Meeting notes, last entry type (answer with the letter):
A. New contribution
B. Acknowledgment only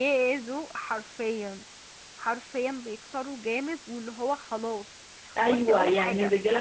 A